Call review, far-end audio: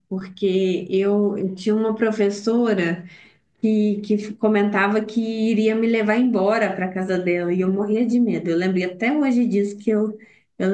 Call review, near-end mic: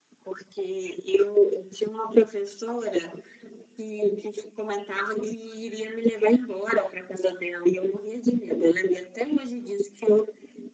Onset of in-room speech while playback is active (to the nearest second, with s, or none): none